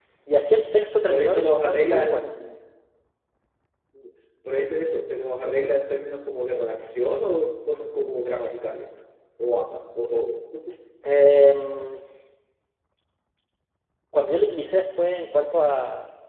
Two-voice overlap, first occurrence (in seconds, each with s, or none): 1.1 s